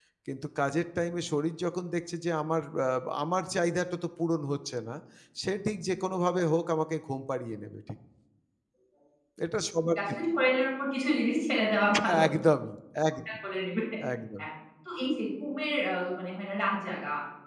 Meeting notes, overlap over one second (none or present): none